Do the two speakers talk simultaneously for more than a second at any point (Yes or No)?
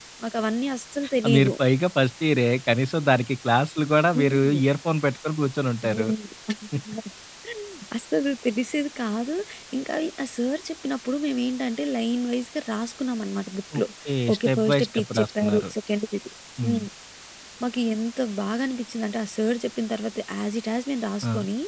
Yes